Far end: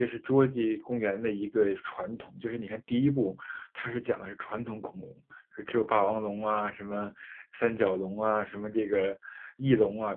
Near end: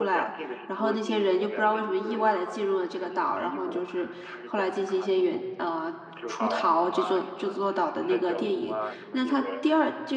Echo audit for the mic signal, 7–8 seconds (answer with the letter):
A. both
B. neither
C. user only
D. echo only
A